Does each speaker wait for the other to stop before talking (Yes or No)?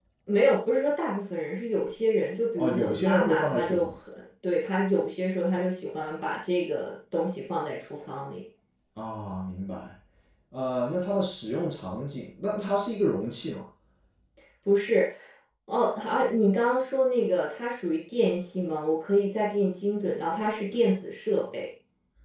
No